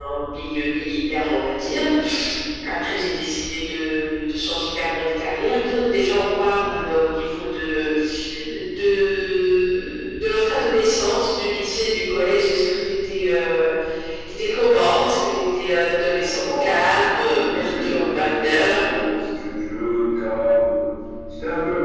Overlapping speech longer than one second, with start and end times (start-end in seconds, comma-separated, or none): 16.2-18.8